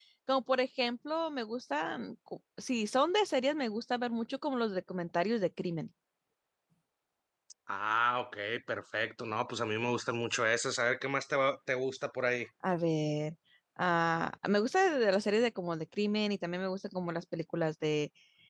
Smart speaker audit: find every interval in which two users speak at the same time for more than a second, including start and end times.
none

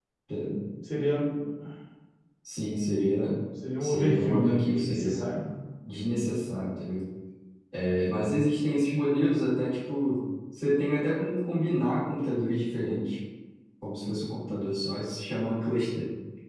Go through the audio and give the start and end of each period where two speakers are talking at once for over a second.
3.8-5.3

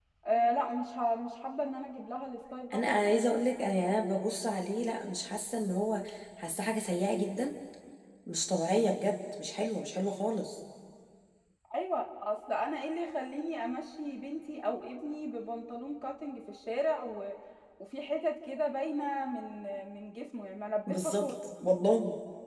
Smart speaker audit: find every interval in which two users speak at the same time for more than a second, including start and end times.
none

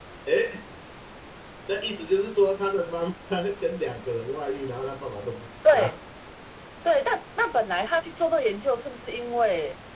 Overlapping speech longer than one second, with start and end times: none

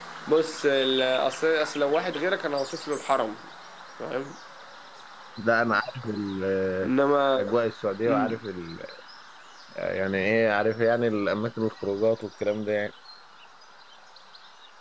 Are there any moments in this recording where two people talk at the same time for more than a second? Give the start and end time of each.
none

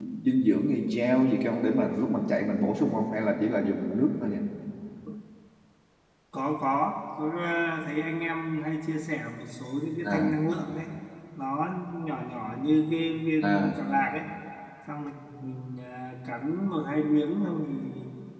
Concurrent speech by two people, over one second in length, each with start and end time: none

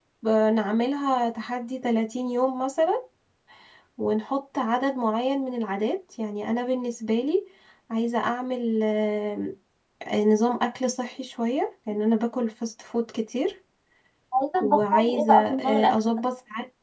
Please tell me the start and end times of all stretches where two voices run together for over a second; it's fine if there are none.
14.6-16.2

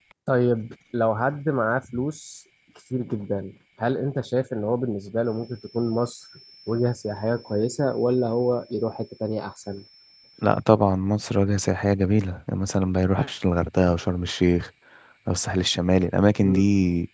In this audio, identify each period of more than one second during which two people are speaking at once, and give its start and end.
none

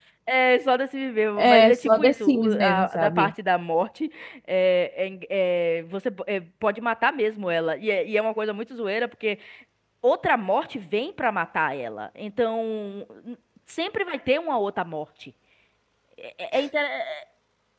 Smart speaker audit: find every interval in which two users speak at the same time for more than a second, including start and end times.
1.4-3.3

